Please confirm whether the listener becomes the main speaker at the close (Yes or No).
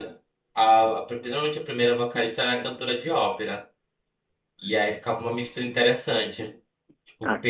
No